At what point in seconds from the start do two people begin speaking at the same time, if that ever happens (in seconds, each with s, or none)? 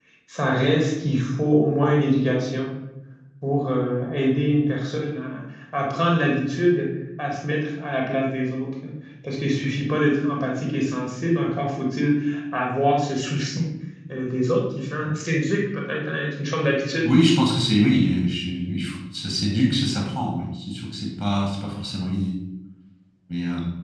none